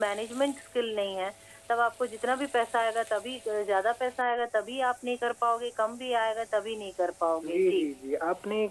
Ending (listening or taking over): taking over